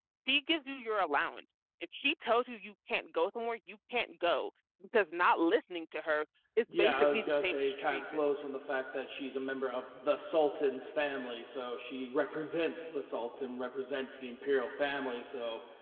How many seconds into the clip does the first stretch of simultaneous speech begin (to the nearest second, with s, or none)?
7 s